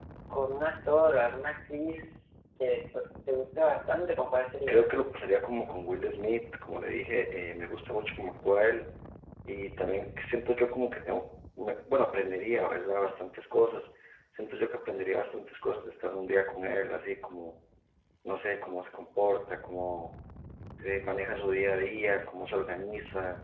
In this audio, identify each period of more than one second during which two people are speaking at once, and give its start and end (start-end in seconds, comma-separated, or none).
none